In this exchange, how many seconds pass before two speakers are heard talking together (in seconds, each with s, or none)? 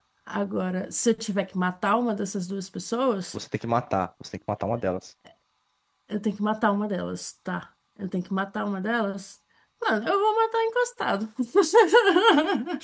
none